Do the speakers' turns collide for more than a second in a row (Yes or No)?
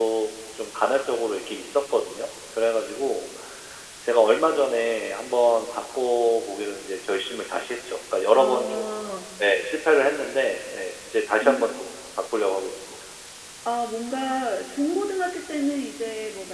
No